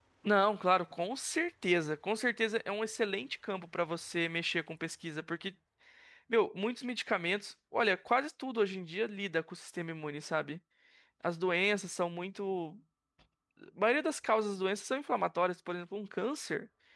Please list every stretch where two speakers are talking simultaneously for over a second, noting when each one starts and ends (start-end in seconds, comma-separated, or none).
none